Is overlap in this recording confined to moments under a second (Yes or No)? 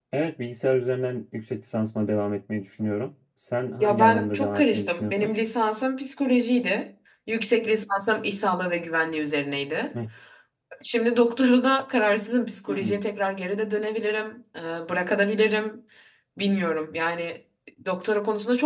No